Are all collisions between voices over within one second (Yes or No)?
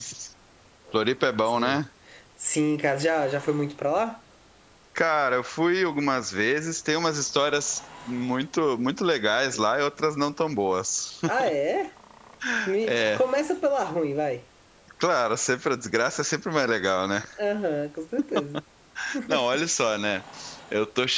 Yes